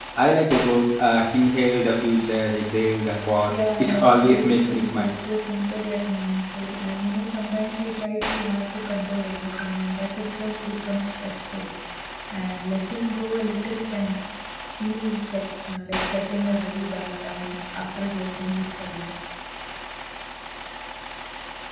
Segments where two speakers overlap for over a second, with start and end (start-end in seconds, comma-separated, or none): 3.5-5.1